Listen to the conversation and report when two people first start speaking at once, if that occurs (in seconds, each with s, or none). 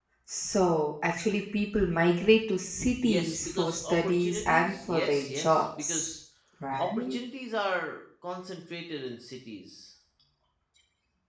3.0 s